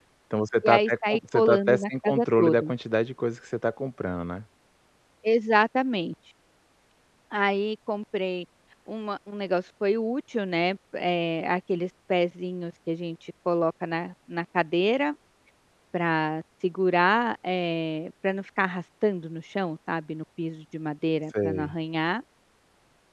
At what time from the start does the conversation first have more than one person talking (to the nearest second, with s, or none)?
1 s